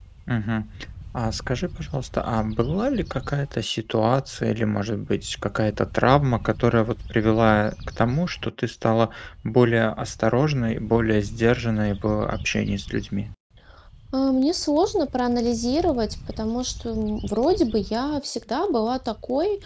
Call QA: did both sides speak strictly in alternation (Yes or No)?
Yes